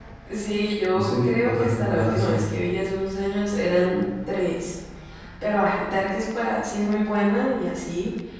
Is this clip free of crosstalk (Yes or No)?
No